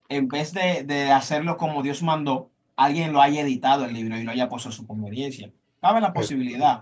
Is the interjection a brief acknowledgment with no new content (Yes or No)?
Yes